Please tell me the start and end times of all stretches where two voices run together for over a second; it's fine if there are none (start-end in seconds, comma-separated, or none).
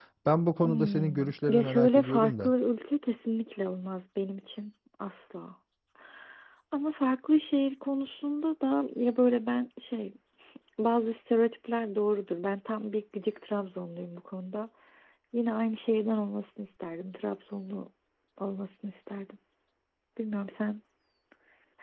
0.6-2.5